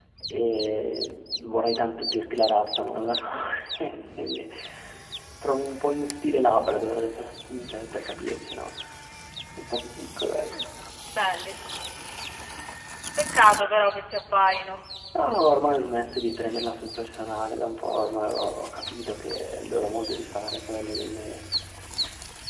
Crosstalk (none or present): none